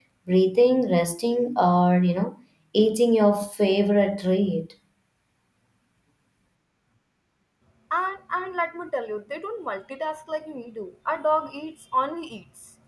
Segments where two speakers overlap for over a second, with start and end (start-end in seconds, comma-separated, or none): none